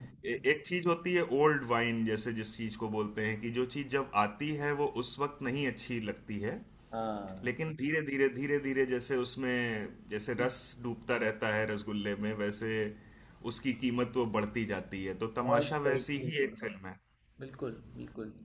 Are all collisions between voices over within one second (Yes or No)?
No